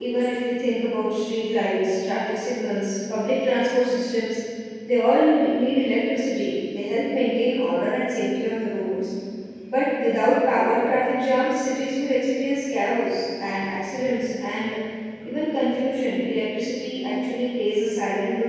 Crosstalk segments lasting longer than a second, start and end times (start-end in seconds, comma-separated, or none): none